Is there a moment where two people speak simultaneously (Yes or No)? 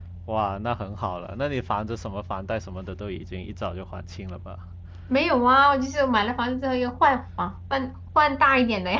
No